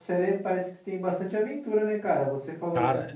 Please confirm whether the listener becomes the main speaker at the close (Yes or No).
No